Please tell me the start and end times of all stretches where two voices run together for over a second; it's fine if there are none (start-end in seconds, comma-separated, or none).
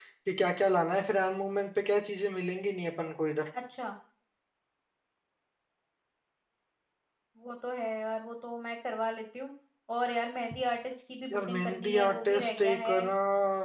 11.3-13.0